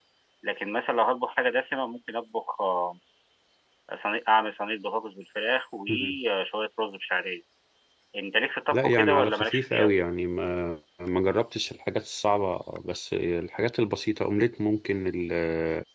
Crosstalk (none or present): present